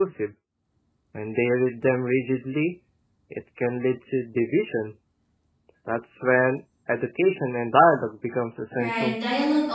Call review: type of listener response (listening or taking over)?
taking over